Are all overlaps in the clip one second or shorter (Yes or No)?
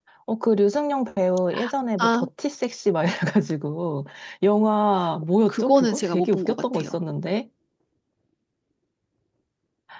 No